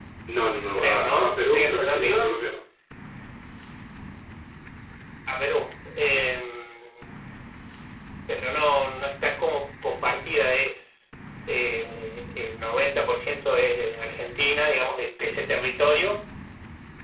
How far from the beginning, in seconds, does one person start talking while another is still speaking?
0.7 s

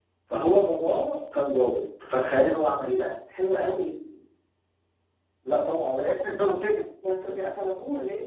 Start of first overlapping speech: none

